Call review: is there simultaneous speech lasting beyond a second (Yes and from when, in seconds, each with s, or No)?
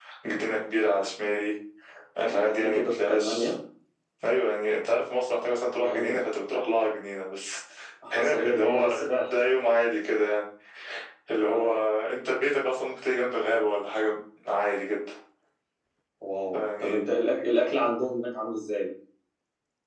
Yes, from 2.3 s